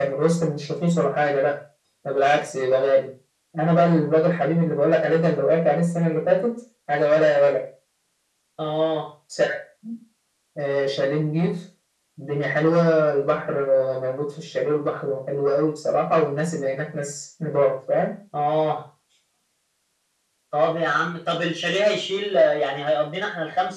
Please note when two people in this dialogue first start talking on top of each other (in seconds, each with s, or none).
none